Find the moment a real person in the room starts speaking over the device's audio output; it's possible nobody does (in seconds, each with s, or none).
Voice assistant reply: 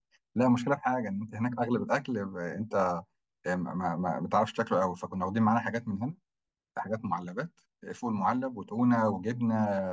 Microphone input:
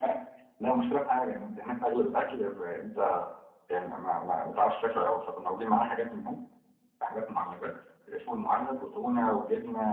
none